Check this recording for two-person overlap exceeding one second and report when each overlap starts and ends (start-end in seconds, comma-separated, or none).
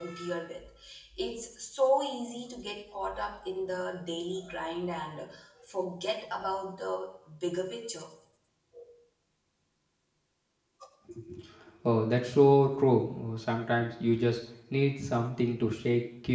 none